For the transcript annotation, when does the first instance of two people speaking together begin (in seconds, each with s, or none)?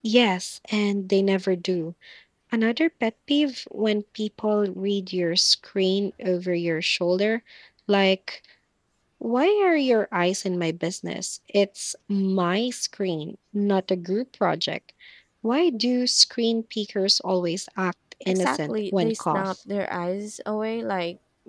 18.3 s